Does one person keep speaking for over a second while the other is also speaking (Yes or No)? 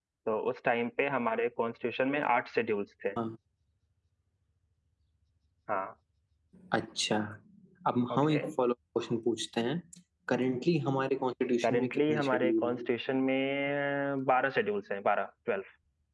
Yes